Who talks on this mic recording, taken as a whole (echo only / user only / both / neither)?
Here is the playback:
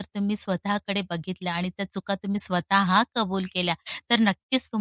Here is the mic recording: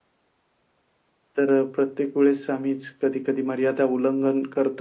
user only